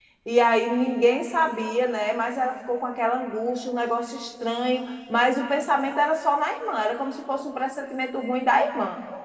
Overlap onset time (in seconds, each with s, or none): none